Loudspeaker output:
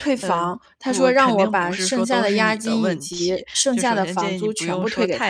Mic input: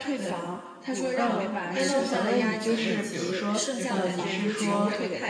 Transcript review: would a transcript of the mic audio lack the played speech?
No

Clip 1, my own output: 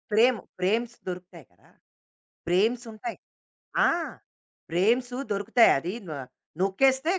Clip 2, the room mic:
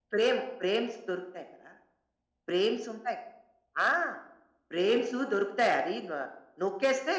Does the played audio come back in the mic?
Yes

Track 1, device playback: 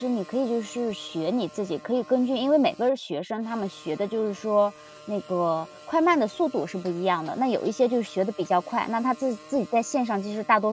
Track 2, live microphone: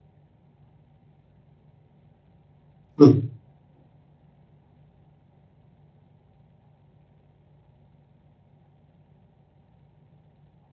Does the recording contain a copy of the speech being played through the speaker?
No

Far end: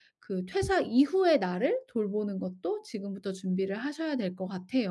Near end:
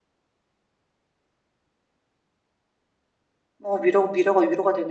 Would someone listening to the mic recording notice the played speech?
No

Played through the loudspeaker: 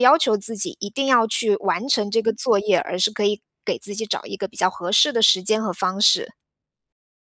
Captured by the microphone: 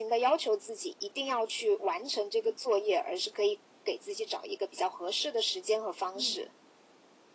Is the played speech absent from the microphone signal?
No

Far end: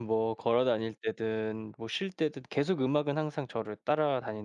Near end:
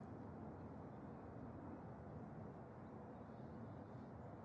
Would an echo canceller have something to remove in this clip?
No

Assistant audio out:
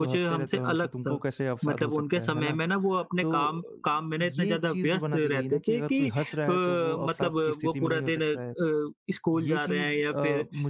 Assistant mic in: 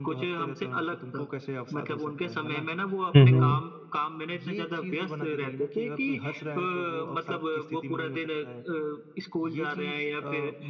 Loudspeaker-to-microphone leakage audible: Yes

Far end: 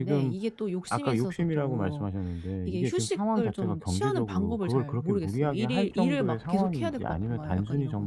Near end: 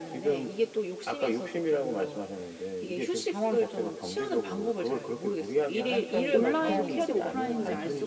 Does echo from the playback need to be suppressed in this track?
Yes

